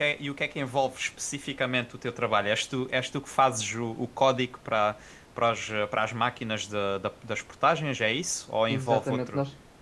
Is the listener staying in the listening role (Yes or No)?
No